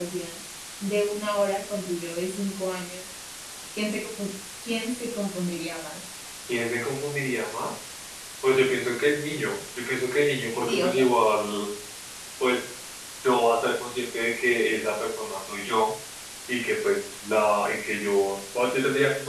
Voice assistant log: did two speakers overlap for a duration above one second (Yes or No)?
No